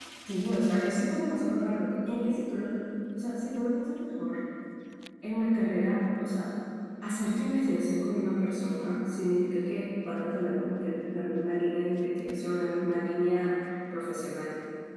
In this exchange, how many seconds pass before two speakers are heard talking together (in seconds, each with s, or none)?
none